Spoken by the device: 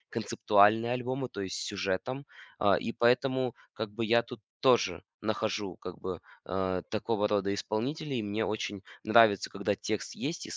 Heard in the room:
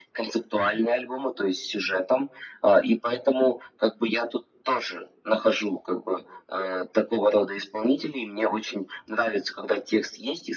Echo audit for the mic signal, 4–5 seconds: echo only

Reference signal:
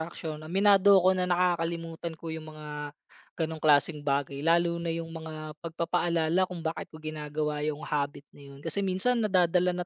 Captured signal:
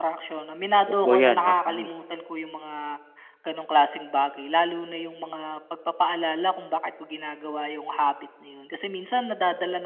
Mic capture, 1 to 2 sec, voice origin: both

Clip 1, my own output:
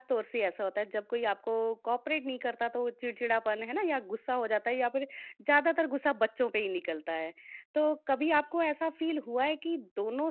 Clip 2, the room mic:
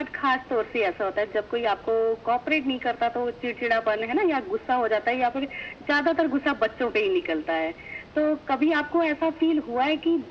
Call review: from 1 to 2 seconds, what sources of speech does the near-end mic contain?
echo only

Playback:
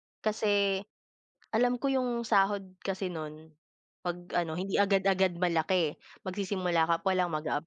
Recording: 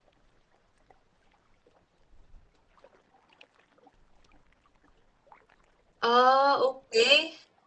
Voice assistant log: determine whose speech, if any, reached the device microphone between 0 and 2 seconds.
neither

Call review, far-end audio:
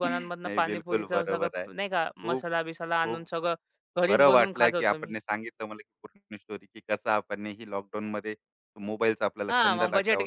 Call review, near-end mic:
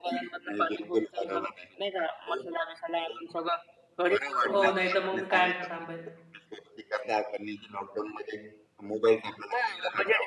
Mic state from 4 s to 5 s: both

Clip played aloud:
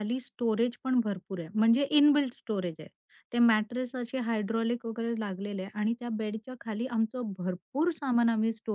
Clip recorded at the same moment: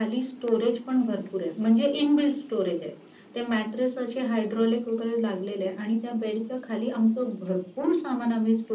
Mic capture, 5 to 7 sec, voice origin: echo only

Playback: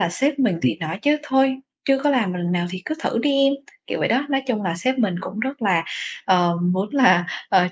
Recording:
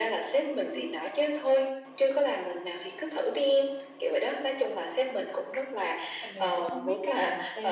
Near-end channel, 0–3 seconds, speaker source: echo only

